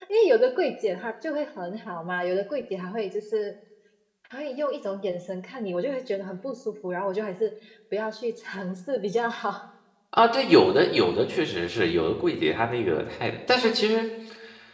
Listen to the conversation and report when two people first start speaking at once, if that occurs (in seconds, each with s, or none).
none